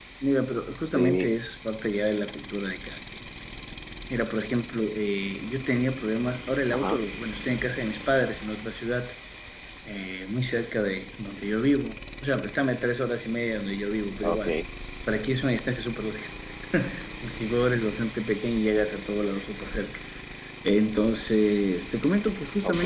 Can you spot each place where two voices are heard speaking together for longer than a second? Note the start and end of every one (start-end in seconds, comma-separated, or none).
none